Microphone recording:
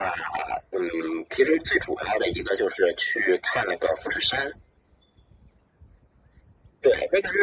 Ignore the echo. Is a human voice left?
No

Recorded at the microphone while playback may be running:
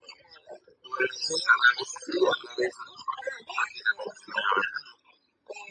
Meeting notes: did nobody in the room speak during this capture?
Yes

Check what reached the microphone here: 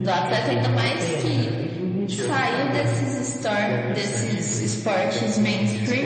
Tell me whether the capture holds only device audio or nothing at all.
Yes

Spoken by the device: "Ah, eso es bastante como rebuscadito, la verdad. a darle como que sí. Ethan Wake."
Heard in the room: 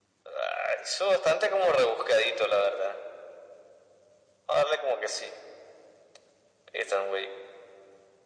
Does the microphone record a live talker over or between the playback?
No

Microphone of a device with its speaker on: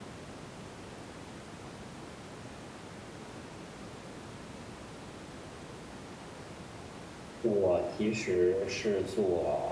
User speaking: Yes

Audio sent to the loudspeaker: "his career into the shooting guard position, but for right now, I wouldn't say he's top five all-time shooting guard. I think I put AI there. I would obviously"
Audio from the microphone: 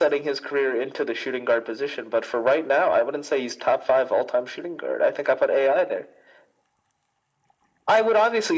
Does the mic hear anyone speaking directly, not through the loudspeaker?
No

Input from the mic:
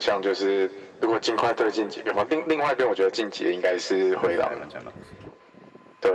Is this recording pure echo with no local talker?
No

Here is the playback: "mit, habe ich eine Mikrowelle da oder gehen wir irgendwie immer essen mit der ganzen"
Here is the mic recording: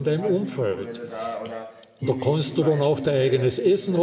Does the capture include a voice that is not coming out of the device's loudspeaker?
Yes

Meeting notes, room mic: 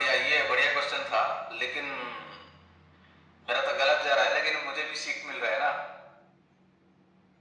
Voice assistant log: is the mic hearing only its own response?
Yes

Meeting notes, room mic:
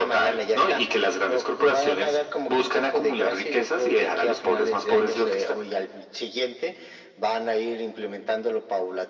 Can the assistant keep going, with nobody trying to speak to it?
Yes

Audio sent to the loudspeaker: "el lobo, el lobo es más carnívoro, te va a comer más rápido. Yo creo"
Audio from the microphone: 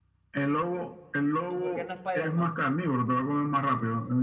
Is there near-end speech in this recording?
Yes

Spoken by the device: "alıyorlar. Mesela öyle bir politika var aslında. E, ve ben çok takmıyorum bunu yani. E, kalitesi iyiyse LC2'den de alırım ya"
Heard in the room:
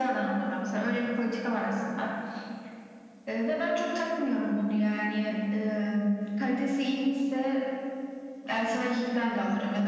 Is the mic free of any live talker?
Yes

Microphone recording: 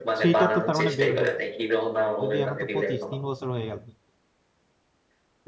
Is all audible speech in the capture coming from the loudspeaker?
No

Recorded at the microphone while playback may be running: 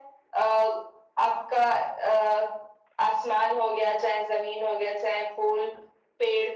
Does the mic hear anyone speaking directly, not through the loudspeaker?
No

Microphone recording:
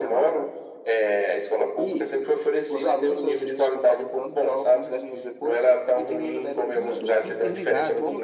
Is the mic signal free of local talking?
No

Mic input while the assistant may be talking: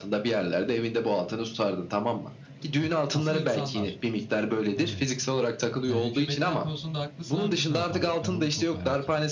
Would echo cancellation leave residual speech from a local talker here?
Yes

